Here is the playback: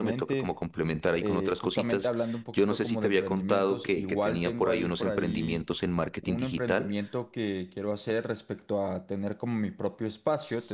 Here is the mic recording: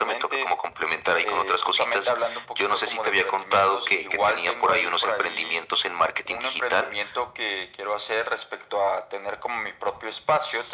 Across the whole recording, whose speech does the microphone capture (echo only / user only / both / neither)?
echo only